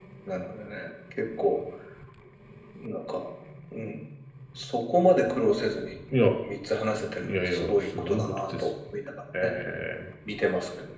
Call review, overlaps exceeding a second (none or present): present